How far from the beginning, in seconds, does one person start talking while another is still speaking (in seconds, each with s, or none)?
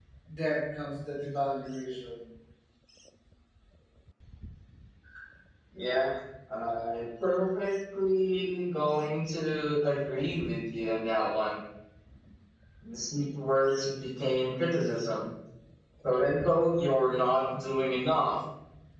none